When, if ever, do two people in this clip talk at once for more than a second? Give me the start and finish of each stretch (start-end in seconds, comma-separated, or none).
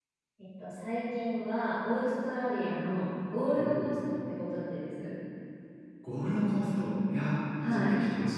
none